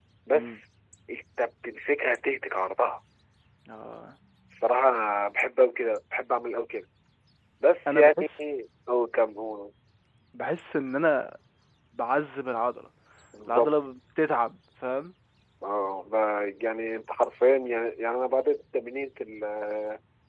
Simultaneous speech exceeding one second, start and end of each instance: none

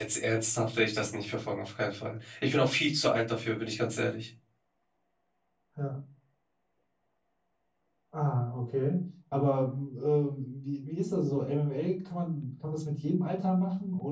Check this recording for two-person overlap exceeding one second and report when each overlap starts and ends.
none

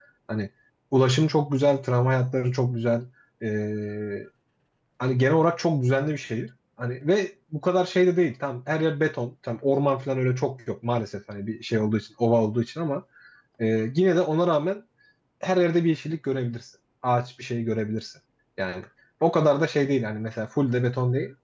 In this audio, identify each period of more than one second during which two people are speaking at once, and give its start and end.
none

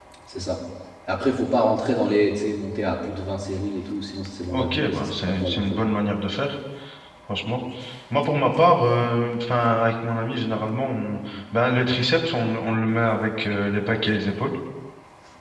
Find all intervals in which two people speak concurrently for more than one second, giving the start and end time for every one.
4.5-5.8

